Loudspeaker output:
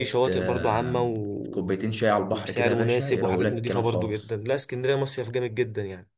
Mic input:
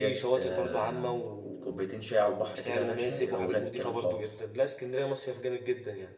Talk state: echo only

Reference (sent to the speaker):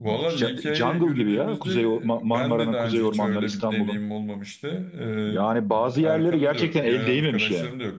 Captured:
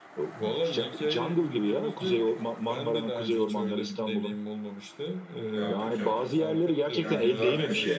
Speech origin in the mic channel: both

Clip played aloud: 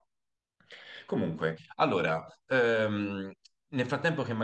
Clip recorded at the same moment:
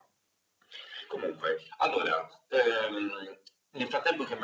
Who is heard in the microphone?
echo only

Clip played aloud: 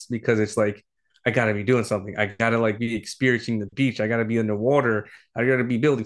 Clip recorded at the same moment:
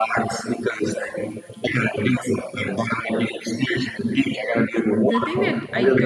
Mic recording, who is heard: both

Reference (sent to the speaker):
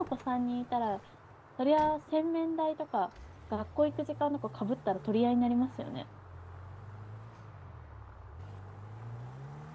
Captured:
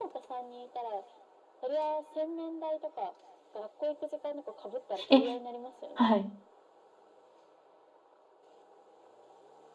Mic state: both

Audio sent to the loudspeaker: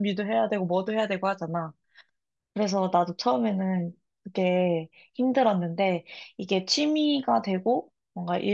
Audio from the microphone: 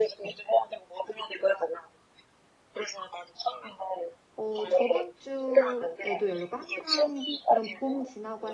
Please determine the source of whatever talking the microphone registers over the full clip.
both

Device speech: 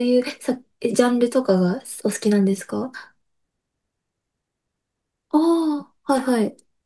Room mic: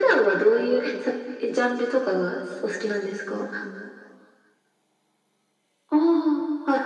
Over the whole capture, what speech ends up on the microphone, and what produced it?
echo only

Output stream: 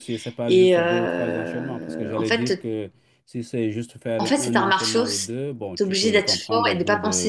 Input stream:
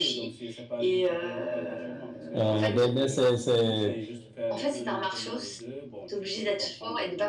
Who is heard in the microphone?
both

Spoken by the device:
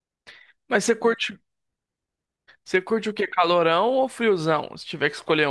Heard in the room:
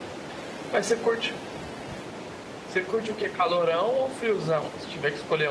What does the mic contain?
echo only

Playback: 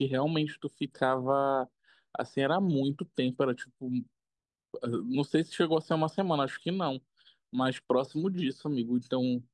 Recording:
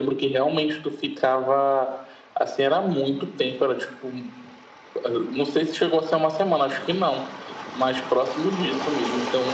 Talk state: echo only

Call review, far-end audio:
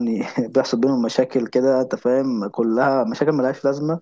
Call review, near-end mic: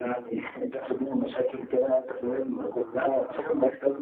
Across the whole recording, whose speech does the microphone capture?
echo only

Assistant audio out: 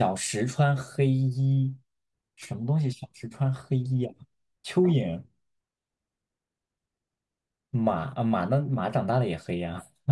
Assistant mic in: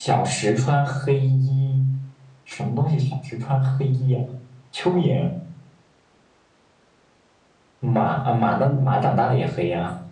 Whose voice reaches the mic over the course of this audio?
echo only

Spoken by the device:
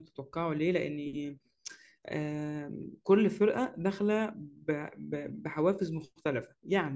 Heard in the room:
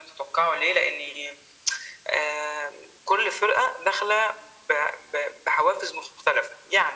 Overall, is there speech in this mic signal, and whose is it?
echo only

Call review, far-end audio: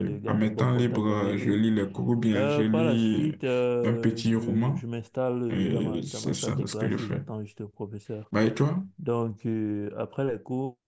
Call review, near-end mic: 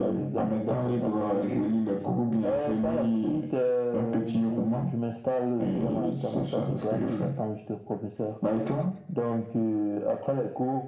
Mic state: echo only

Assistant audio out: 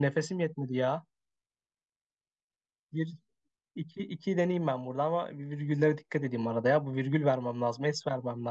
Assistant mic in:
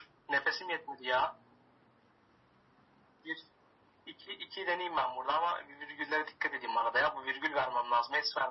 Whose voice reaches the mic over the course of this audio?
echo only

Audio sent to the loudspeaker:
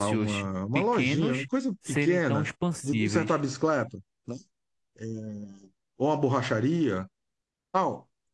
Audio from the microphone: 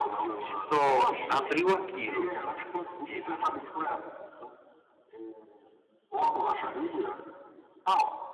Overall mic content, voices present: both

